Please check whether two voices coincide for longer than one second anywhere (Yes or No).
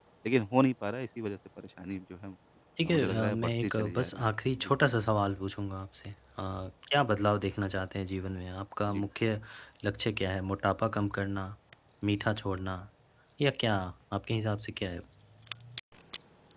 Yes